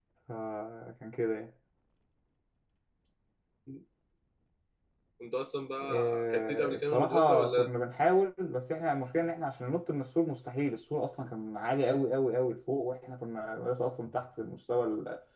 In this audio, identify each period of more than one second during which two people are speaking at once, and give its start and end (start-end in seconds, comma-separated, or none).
5.8-7.7